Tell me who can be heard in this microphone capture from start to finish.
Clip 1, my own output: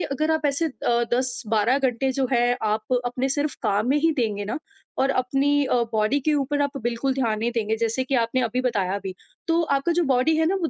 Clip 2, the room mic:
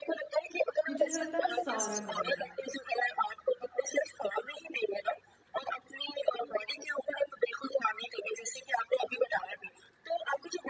both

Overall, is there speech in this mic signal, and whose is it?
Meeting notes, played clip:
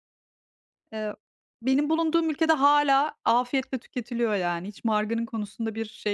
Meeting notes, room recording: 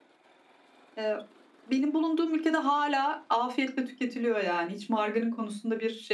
echo only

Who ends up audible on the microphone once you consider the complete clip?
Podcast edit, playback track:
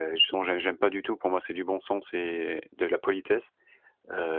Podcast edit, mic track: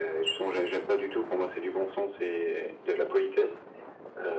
echo only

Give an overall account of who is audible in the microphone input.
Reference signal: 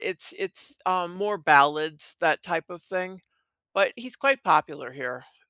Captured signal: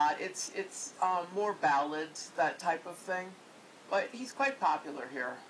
echo only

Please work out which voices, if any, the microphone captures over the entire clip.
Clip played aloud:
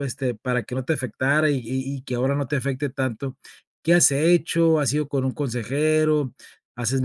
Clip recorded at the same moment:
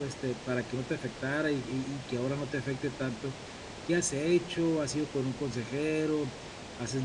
echo only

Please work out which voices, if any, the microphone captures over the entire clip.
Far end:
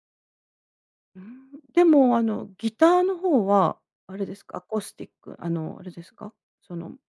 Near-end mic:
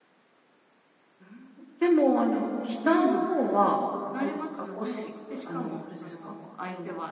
both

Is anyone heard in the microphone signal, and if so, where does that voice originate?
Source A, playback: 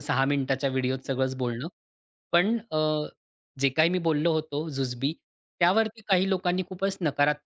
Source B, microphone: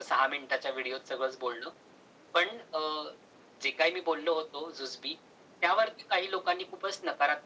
echo only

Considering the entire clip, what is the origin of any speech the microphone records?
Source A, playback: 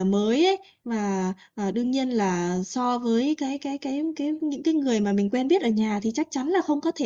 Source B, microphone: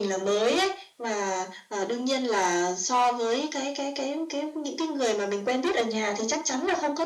echo only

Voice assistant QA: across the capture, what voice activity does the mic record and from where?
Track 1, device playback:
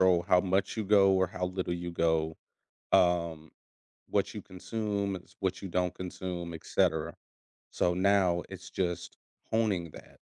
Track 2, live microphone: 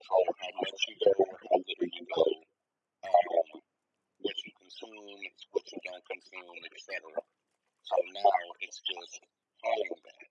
echo only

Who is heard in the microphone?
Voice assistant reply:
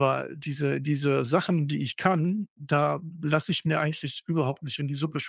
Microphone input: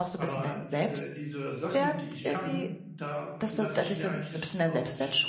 both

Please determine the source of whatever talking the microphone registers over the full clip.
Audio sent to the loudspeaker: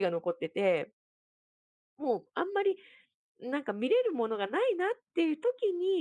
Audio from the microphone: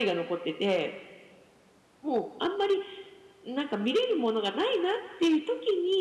echo only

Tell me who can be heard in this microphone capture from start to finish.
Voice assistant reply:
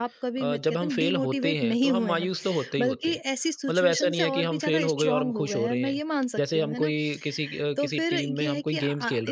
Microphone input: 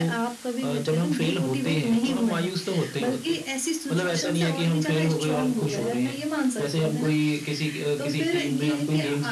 echo only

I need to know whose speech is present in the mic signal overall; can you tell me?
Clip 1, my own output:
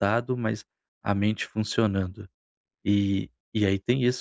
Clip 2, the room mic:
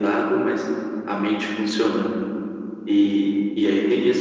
echo only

